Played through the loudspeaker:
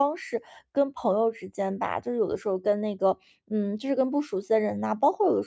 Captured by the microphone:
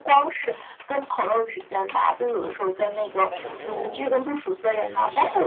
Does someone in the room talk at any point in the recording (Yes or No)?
Yes